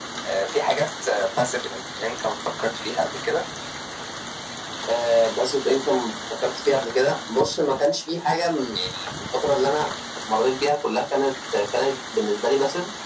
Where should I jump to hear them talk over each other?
none

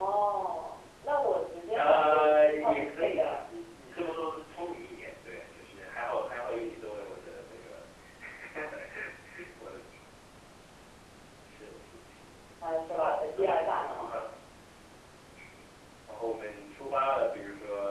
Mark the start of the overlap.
1.7 s

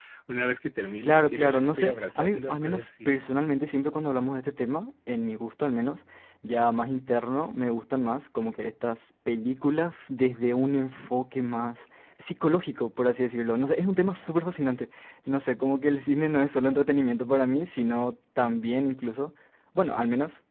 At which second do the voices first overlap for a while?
1.0 s

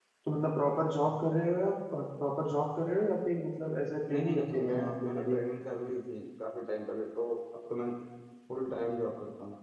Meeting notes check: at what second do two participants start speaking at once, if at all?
4.1 s

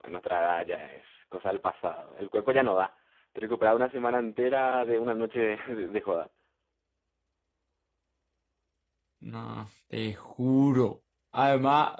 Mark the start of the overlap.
none

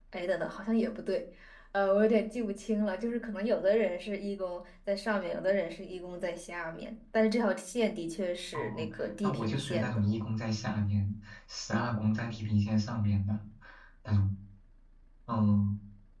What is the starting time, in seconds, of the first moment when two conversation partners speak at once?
8.5 s

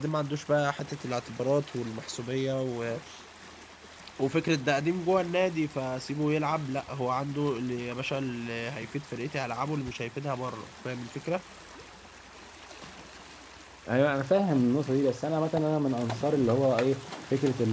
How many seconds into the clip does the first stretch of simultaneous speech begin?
none

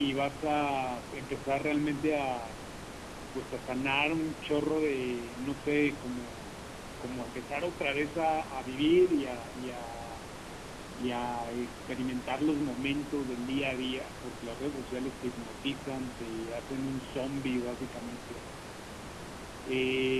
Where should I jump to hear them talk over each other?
none

